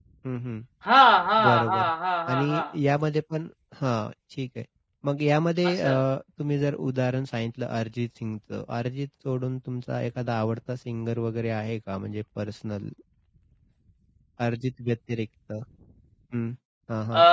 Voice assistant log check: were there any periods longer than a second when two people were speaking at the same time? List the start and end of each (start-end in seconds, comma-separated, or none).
none